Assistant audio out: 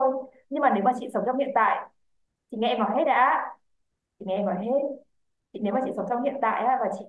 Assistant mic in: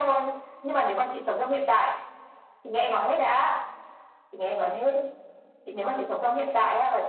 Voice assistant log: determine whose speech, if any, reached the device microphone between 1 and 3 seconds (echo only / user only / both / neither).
echo only